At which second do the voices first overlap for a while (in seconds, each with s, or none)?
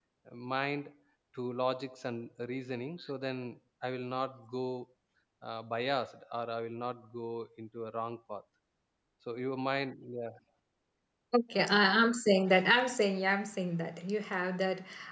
none